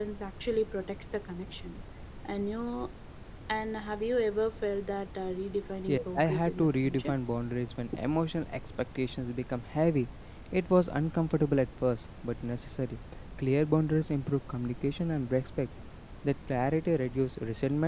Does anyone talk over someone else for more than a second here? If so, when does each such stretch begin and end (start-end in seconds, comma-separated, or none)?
5.9-7.1